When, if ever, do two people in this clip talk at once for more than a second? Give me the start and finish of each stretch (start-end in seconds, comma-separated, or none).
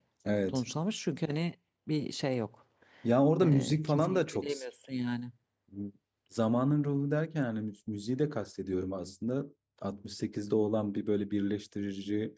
3.4-4.6